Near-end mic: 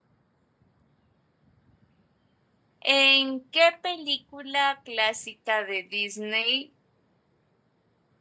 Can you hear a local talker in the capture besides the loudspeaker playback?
Yes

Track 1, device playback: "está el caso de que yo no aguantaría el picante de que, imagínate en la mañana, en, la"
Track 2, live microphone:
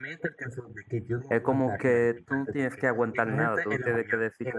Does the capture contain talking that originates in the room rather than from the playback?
Yes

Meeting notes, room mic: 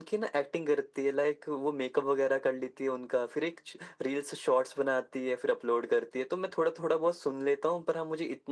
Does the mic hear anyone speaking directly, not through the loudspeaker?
No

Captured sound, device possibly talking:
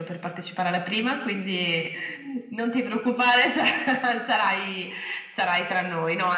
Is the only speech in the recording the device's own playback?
Yes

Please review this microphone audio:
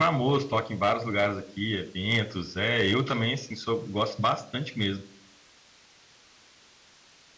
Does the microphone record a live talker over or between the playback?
Yes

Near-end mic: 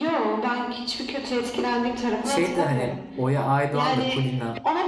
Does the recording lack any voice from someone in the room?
No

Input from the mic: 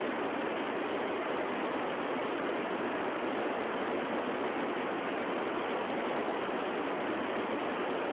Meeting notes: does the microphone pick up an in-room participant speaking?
No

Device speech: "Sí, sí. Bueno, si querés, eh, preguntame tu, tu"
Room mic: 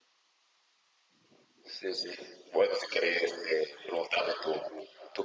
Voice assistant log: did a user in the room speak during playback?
No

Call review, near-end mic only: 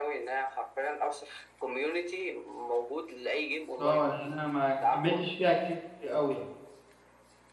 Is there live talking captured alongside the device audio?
Yes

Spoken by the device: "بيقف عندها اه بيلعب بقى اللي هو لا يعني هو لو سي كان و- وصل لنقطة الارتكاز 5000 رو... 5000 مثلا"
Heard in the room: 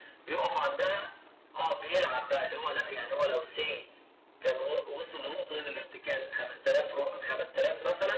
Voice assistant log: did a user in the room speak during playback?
No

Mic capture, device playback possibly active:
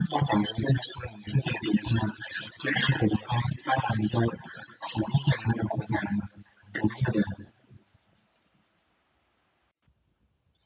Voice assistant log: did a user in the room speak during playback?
No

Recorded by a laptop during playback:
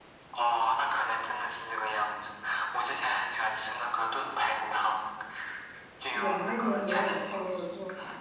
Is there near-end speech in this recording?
Yes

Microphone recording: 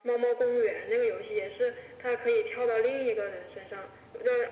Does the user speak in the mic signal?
No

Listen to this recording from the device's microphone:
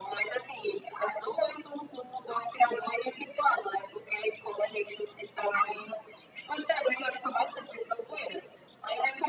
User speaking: No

